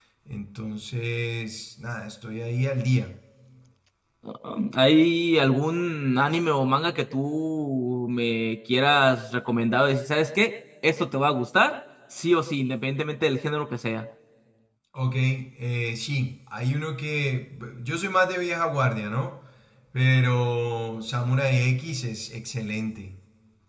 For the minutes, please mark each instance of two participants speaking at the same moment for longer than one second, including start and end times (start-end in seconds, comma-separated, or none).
none